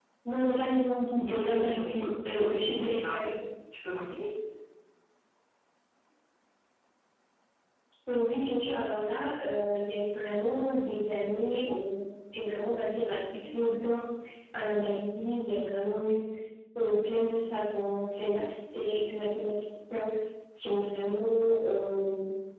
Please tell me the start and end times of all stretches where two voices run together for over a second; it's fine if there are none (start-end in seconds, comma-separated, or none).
1.2-3.2